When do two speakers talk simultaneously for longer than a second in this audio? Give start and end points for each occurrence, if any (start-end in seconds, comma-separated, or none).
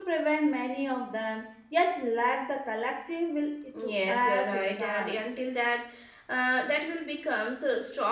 3.8-5.3